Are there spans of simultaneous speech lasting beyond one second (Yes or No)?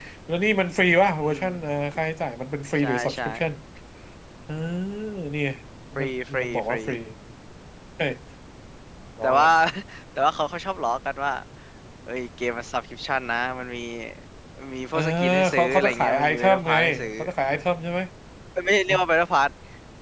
Yes